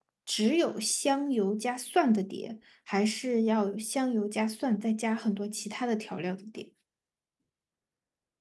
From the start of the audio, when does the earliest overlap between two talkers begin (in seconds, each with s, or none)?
none